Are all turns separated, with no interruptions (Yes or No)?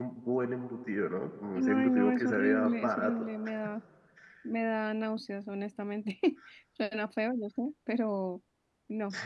No